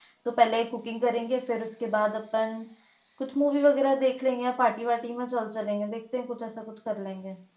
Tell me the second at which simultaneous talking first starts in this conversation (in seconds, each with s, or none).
none